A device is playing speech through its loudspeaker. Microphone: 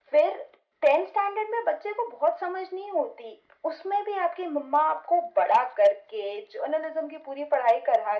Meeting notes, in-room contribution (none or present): none